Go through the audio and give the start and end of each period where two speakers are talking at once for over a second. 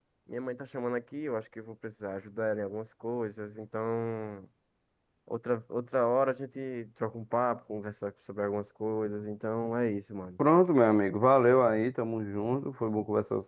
none

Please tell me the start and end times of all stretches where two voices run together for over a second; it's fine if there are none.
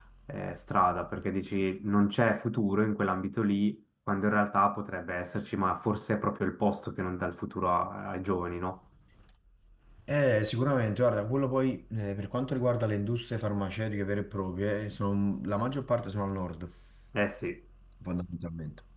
none

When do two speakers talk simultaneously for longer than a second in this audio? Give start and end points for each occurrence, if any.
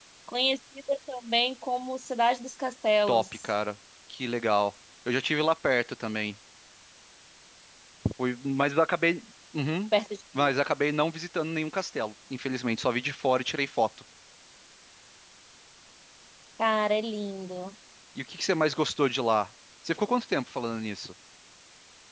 none

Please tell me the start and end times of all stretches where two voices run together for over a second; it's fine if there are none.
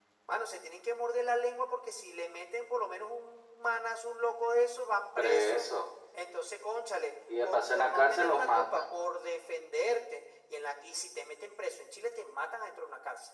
7.4-8.8

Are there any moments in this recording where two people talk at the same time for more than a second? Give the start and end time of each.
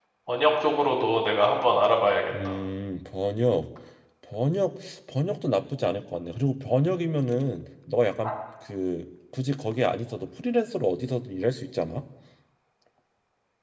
none

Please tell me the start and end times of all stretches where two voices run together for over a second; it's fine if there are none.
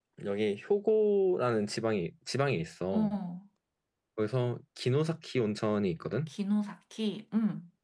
none

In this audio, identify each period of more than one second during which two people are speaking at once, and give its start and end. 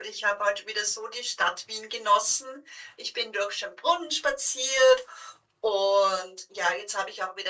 none

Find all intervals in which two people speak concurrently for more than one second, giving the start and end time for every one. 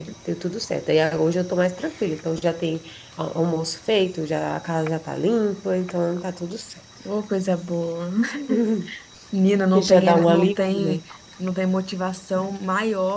9.8-11.0

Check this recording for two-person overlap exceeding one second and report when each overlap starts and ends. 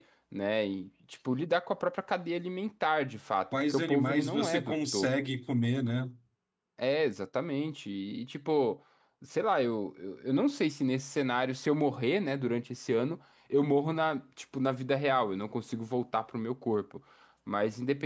3.5-5.1

